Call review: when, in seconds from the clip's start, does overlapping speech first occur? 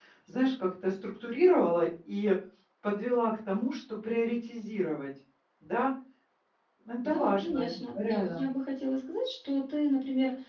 7.0 s

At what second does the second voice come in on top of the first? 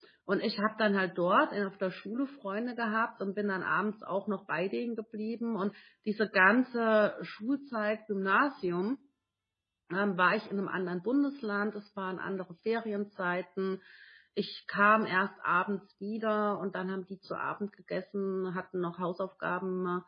none

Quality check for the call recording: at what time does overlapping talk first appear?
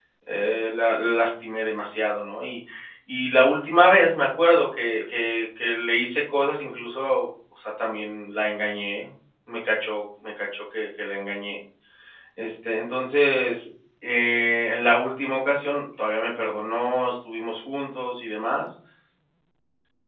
none

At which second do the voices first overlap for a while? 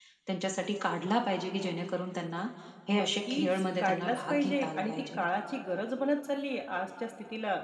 2.9 s

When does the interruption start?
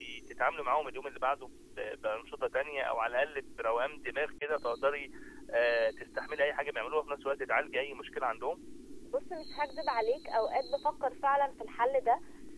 none

